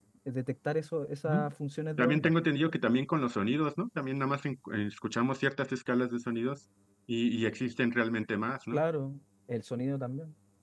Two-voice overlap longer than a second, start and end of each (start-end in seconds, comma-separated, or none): none